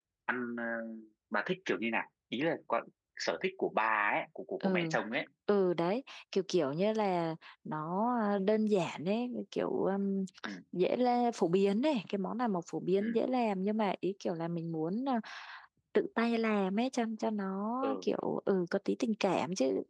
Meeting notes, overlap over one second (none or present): none